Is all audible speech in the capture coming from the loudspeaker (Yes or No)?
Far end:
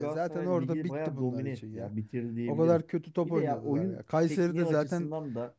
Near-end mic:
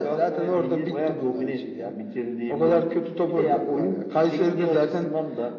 Yes